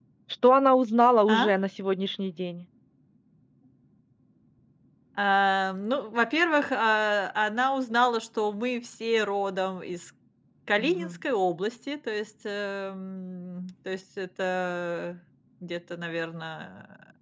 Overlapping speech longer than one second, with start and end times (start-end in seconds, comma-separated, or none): none